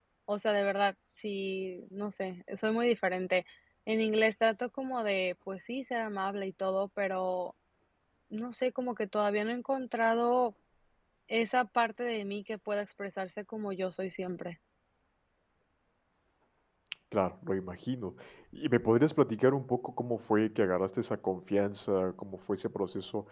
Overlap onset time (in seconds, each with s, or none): none